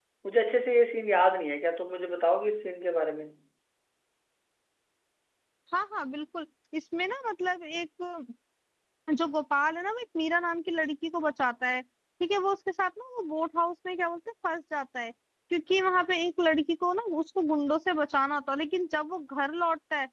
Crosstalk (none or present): none